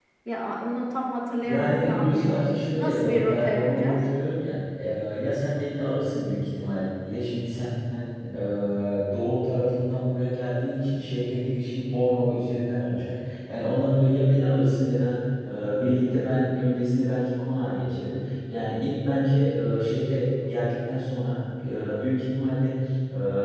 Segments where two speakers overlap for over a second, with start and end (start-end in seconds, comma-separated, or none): 1.4-4.0